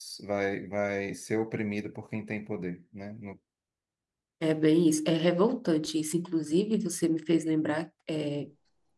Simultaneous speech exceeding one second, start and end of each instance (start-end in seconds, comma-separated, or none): none